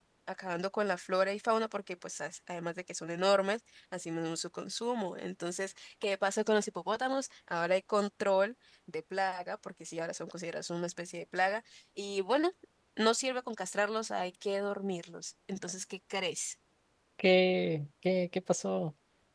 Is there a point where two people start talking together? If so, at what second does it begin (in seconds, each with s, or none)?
none